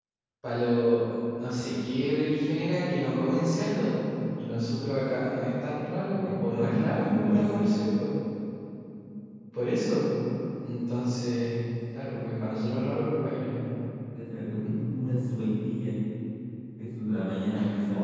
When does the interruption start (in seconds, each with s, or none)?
6.5 s